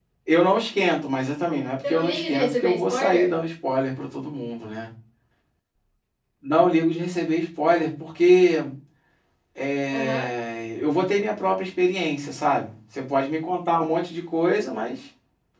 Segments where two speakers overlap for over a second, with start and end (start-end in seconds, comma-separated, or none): 1.9-3.4